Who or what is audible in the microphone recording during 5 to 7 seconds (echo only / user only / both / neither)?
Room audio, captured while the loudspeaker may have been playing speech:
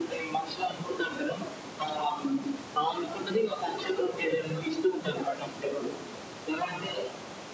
echo only